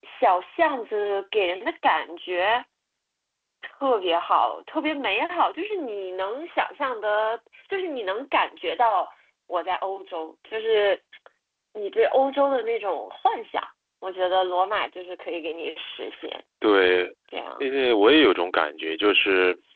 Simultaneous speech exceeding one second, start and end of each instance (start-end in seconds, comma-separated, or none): none